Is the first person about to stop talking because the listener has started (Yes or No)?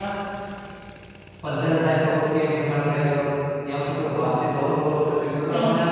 No